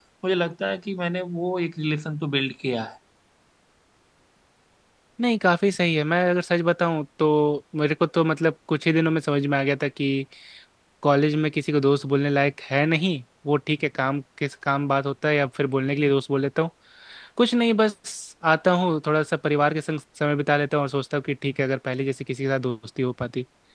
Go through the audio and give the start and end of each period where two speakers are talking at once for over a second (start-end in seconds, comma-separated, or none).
none